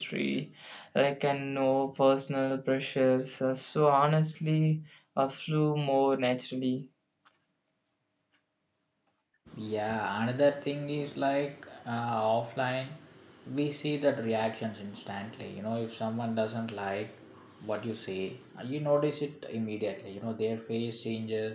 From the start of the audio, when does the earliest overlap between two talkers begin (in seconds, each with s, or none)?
none